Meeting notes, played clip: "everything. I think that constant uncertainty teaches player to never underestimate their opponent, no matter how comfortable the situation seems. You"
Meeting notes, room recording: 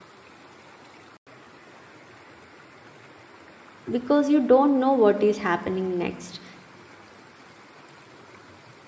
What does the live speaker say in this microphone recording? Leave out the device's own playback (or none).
because you don't know what is happening next